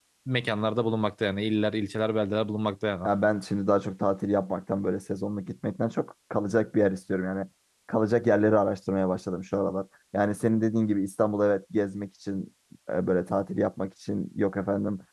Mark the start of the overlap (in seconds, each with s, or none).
none